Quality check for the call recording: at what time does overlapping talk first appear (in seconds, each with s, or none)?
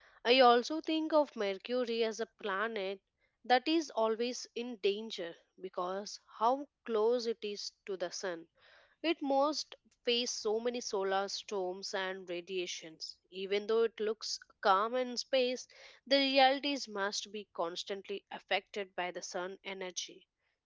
none